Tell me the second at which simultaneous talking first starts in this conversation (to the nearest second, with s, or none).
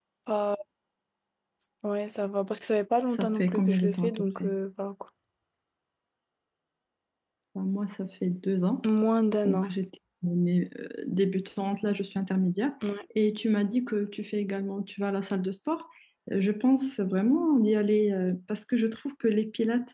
3 s